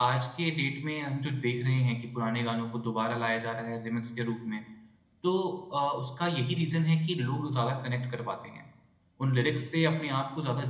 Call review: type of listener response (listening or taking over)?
listening